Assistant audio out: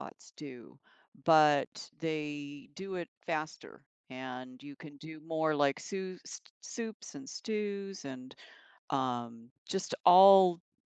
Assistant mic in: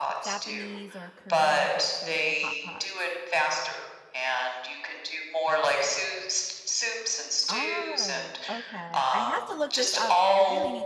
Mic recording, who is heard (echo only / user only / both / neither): both